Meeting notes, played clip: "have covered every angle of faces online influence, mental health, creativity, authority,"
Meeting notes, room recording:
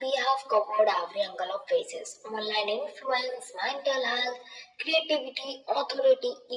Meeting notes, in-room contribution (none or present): none